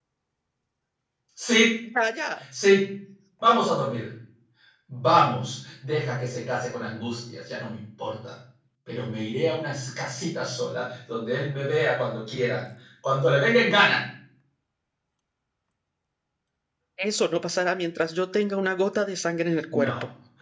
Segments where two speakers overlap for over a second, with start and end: none

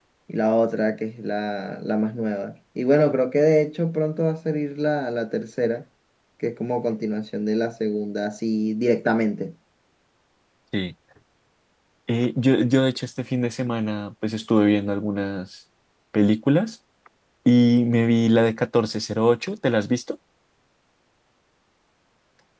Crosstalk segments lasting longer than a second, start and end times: none

